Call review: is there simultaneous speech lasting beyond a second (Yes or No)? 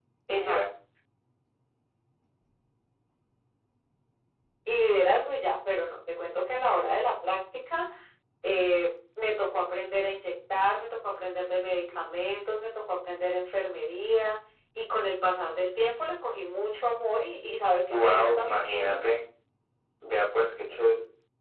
Yes